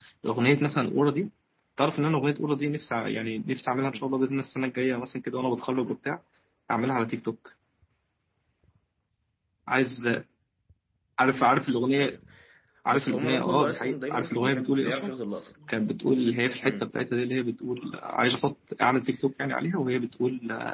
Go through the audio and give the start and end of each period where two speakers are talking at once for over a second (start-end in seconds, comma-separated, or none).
12.9-15.1